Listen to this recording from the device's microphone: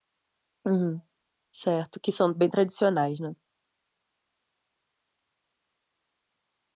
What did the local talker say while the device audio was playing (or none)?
Uhum. Certo, que são bem tradicionais, né?